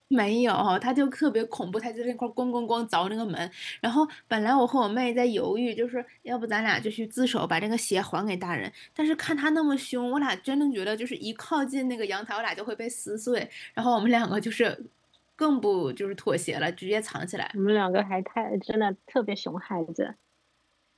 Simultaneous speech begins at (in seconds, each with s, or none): none